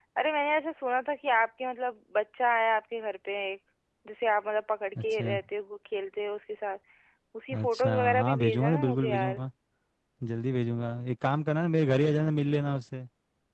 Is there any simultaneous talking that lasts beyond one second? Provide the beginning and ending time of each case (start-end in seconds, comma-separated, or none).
7.6-9.4